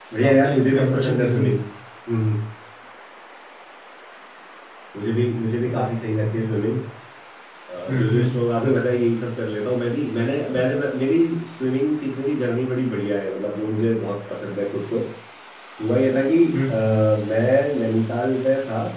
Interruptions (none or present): present